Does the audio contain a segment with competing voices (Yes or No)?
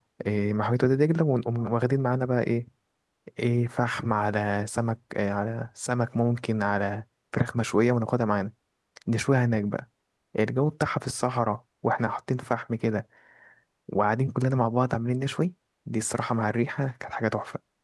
No